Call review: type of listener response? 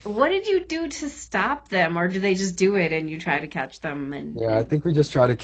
taking over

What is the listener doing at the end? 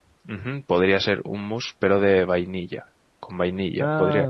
listening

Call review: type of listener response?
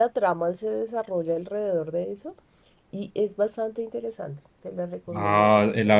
taking over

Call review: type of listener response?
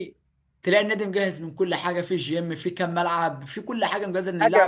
taking over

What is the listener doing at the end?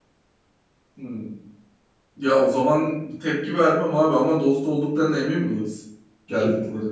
taking over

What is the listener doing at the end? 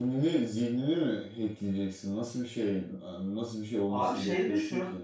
taking over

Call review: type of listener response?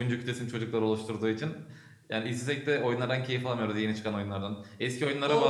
listening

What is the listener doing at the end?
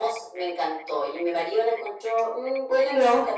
listening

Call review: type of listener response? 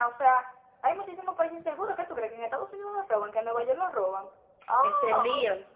taking over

